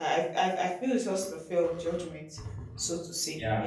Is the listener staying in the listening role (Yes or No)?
No